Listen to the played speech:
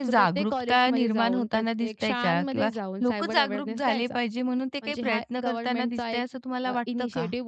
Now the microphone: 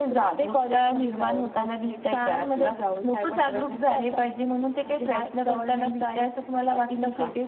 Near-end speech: none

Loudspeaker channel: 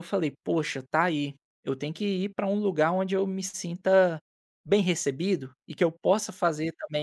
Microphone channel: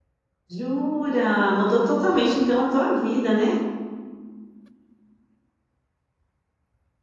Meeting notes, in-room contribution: present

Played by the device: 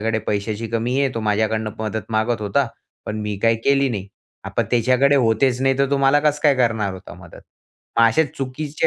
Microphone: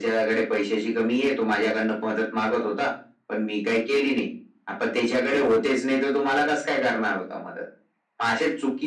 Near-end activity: none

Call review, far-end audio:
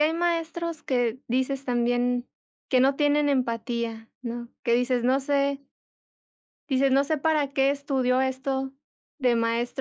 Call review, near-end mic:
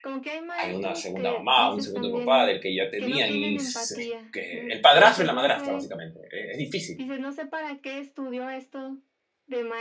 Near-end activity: present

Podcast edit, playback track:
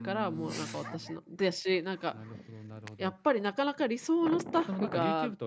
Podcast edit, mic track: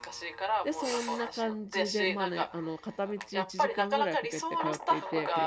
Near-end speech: present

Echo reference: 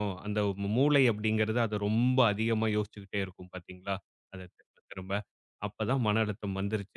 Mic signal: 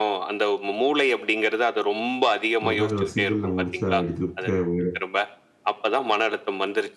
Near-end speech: present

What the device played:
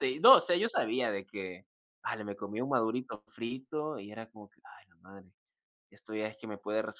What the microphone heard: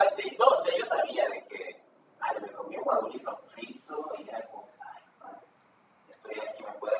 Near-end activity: none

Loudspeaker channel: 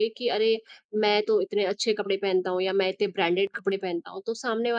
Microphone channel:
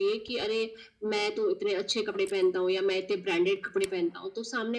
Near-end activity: none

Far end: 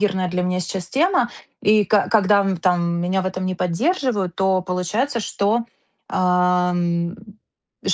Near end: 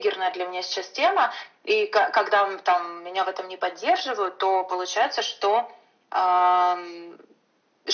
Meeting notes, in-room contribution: none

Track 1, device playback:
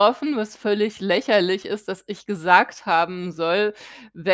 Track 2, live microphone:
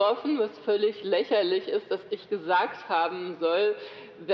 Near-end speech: none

